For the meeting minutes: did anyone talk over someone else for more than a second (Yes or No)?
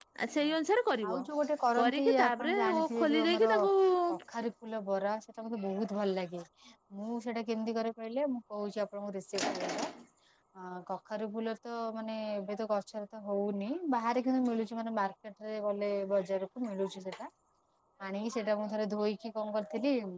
Yes